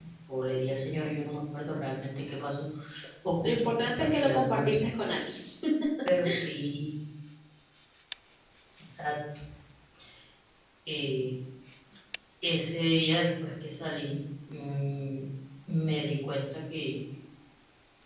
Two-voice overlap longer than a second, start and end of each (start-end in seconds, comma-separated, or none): 3.4-4.8